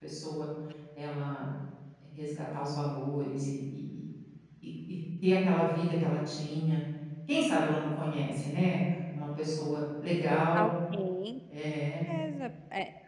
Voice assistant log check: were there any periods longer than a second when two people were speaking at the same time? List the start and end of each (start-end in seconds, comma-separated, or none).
none